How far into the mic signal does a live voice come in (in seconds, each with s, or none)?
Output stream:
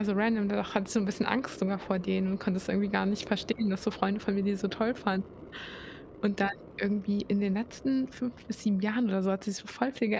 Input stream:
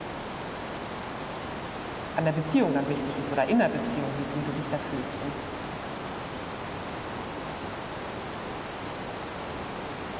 2.1 s